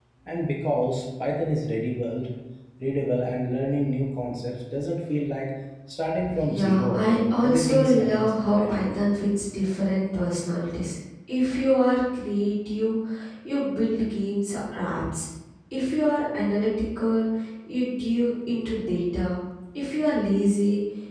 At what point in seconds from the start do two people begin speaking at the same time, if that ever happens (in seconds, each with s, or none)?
6.4 s